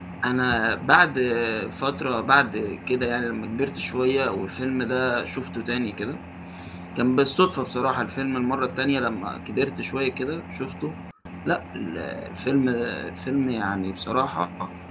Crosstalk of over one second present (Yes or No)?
No